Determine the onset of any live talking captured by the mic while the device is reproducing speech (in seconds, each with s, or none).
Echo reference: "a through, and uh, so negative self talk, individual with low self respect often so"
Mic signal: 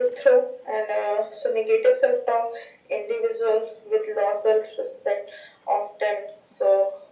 none